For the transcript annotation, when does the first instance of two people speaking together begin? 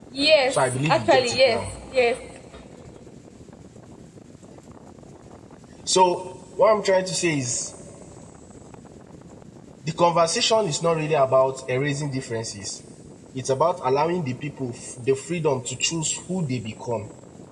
0.5 s

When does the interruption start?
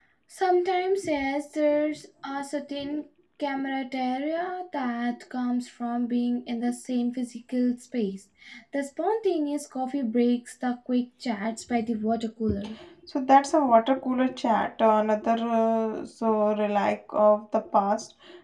none

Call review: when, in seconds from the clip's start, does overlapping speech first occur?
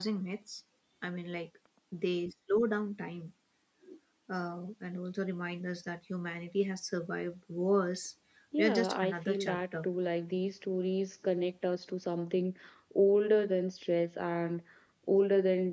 8.6 s

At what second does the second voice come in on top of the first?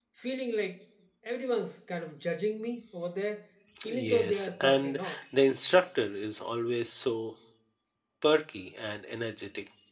3.9 s

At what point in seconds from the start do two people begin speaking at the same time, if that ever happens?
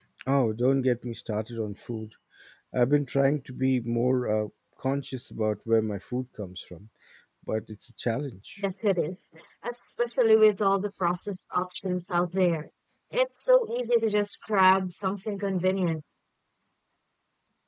none

